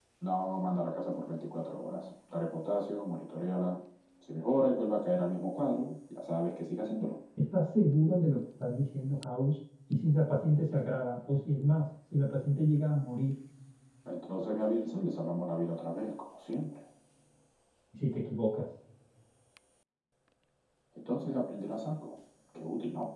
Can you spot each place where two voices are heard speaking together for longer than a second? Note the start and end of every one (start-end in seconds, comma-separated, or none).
none